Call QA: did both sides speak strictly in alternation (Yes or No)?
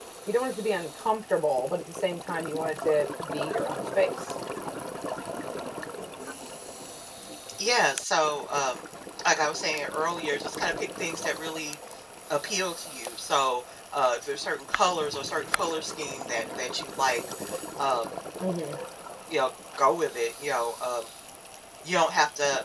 Yes